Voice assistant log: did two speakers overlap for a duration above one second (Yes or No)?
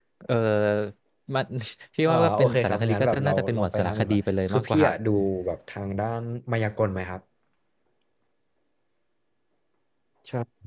Yes